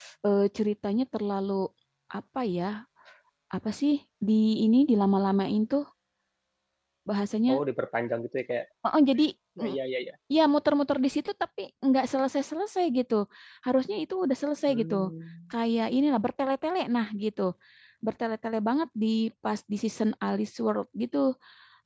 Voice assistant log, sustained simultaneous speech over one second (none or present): none